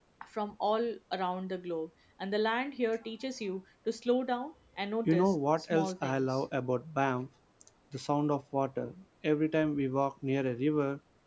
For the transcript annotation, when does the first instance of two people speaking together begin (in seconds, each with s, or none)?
5.0 s